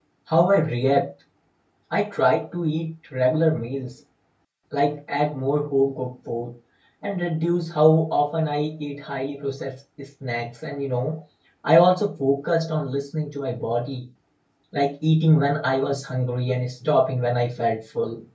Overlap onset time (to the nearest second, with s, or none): none